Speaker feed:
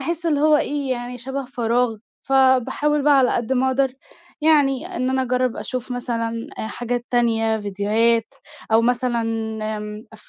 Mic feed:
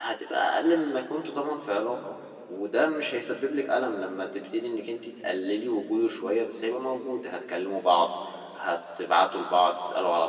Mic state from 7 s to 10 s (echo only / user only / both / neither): user only